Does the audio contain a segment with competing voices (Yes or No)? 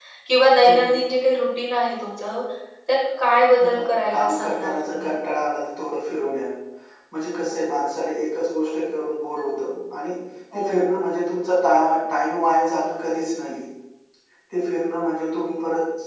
Yes